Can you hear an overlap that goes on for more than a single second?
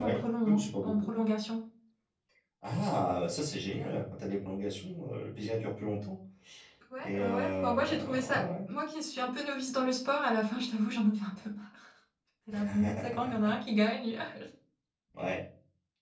Yes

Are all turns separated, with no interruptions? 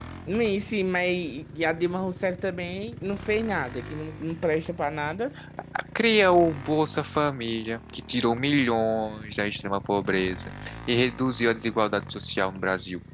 Yes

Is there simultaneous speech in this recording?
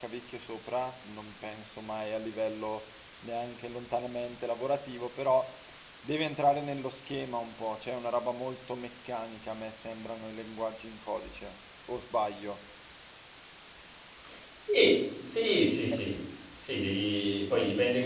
No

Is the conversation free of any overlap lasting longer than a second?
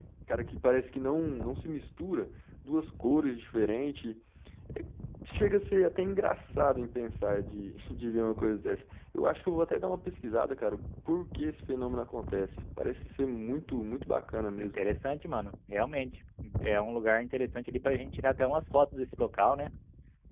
Yes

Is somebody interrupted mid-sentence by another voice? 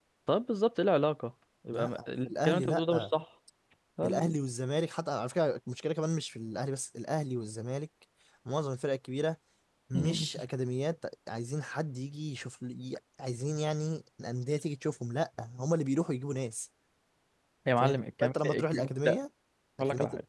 Yes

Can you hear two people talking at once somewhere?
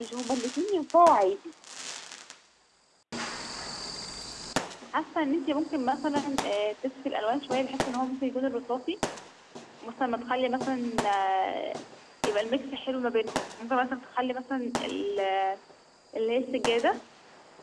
No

